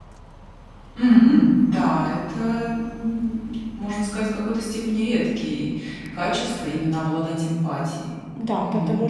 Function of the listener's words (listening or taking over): taking over